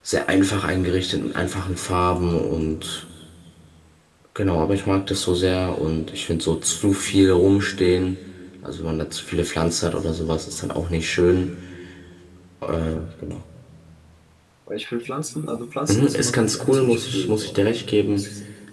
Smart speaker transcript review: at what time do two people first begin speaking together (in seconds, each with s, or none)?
15.9 s